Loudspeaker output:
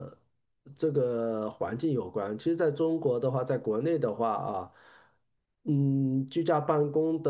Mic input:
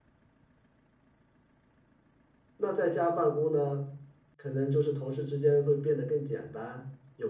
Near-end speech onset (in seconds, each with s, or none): 2.6 s